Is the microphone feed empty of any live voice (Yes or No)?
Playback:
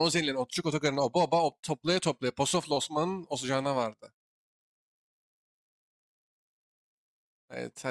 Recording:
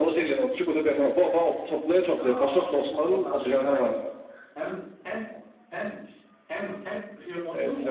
No